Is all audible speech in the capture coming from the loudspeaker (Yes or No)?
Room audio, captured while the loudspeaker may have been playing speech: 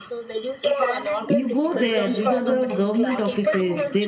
No